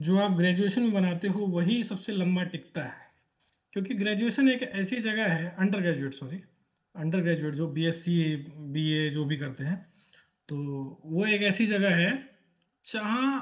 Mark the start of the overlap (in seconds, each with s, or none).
none